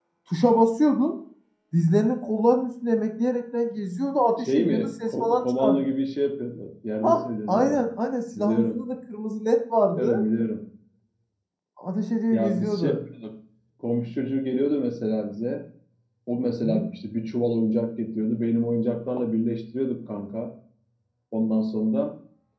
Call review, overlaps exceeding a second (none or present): present